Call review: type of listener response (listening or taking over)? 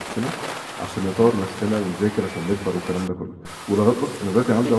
listening